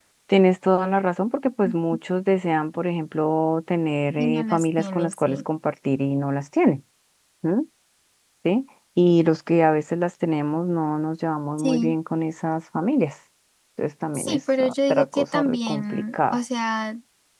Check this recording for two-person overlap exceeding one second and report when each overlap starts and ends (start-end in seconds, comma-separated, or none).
4.2-5.4, 14.1-16.4